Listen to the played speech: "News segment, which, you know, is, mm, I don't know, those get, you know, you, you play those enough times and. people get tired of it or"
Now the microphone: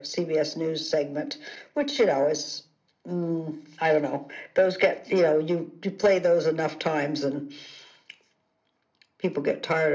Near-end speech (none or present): none